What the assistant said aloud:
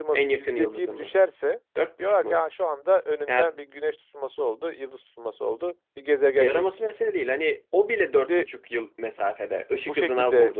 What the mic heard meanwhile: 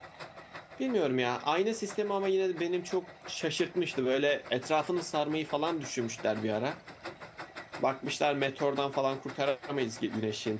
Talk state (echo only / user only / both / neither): user only